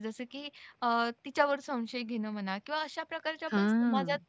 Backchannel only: Yes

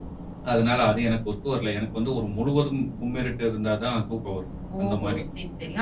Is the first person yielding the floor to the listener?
Yes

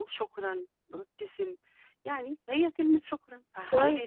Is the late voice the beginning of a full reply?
Yes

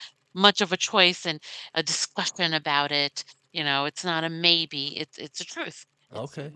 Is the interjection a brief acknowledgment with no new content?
Yes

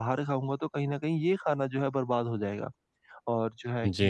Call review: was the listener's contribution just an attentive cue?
Yes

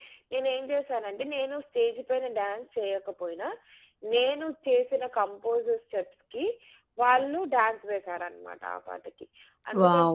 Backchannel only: No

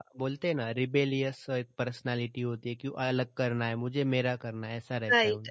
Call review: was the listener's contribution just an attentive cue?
No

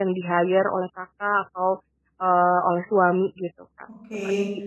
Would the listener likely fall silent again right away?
No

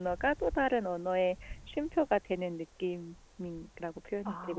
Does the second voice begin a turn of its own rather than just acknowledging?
Yes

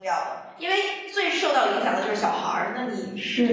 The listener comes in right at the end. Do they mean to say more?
Yes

